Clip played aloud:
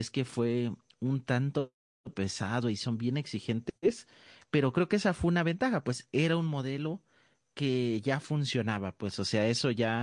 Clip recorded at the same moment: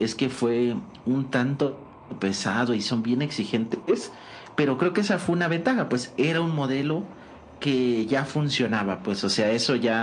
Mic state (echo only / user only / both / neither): echo only